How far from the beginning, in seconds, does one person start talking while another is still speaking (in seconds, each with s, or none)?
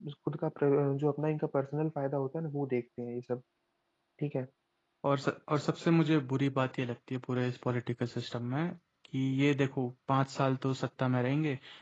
none